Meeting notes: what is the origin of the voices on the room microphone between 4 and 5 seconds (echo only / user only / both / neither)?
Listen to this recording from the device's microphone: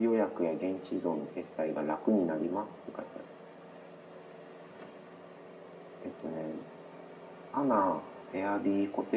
neither